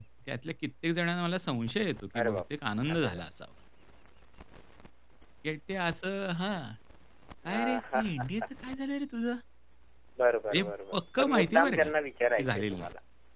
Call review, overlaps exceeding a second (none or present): present